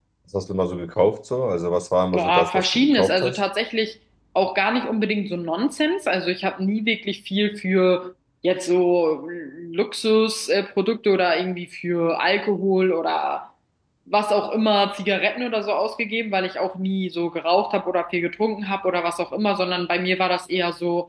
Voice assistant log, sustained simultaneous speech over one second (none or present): present